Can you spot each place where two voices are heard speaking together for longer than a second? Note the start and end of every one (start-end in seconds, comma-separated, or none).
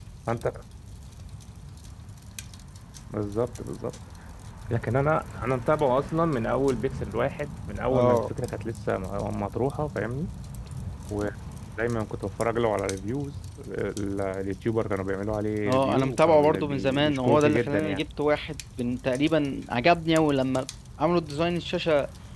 15.7-18.0